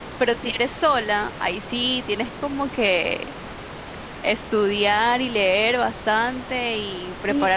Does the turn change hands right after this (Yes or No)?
Yes